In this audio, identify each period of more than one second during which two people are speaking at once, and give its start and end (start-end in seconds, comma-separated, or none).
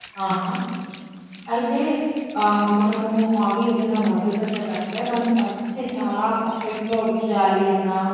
none